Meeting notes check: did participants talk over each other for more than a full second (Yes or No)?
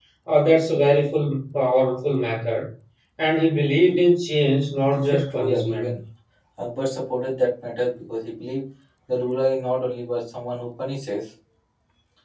Yes